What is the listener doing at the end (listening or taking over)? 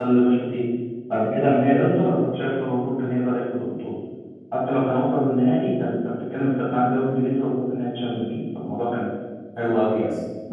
listening